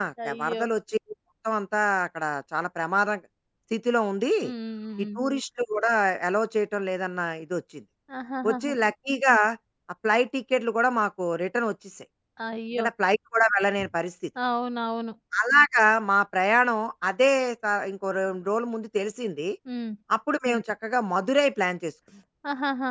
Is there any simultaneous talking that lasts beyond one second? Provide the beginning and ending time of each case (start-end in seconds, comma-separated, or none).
none